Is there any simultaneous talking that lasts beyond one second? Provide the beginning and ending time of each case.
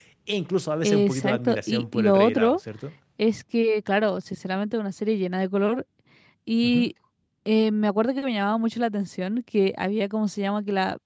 0.8-2.6

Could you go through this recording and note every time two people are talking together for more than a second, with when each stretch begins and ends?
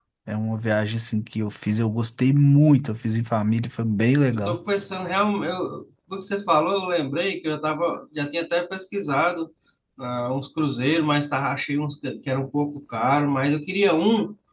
none

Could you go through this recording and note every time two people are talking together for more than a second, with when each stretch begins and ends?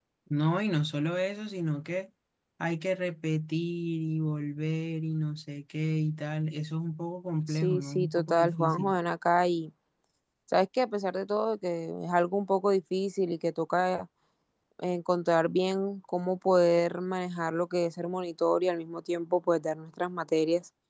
7.5-8.9

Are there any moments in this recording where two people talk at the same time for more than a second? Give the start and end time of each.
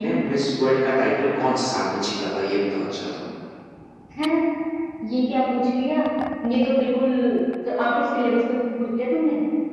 none

